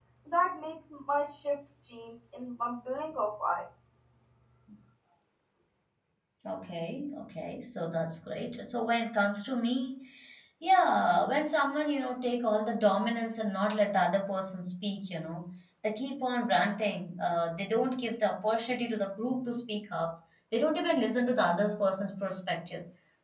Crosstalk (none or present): none